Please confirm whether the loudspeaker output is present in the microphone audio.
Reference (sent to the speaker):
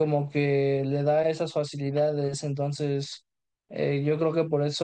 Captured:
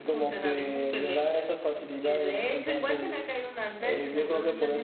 Yes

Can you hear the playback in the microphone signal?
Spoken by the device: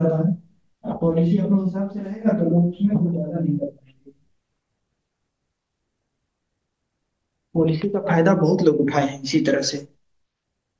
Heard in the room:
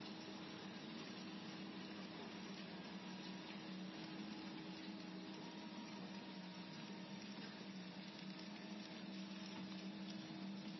No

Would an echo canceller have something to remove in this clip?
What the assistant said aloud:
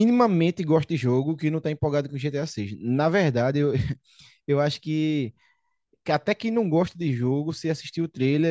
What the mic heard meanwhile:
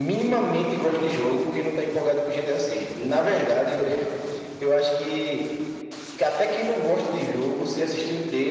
Yes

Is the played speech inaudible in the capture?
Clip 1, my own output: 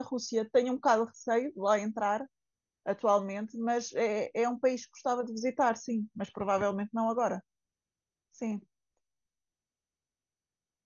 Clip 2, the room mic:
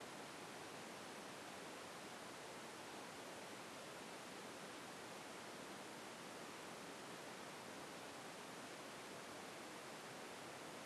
Yes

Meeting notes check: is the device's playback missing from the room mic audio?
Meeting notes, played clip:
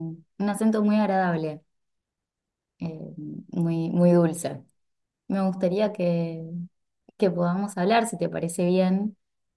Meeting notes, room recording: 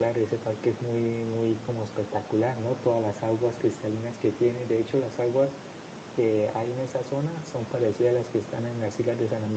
Yes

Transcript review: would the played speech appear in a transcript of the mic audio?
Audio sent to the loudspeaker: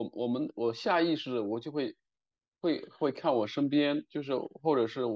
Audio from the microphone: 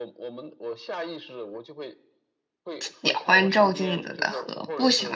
Yes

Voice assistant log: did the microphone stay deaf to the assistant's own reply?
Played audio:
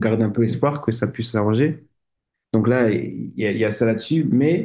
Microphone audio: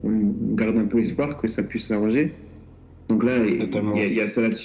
No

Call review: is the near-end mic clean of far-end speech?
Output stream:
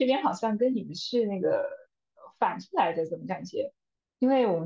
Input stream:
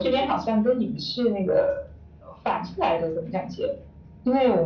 No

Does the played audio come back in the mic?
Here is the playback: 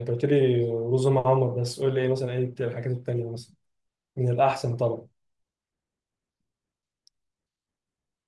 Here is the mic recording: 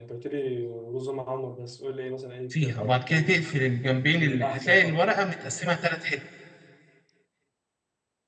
Yes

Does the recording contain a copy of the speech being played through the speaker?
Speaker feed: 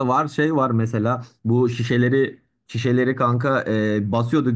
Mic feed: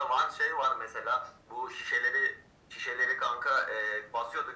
Yes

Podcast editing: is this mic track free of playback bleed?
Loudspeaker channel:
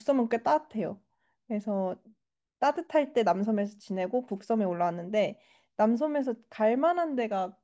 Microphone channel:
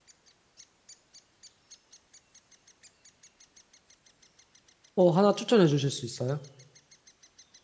Yes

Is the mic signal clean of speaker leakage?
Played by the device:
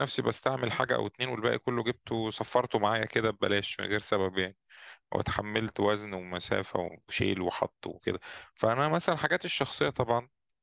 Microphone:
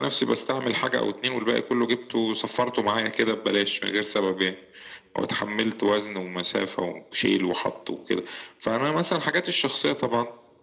No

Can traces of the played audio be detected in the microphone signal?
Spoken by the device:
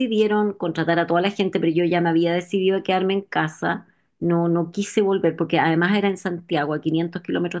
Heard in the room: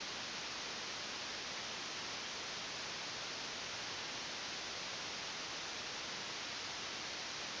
No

